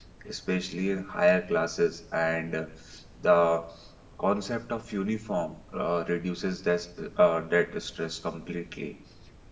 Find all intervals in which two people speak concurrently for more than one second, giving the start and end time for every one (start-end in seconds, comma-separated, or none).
none